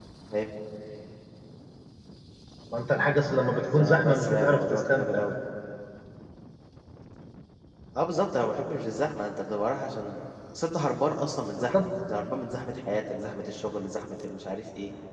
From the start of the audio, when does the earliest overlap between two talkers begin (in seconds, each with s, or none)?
3.8 s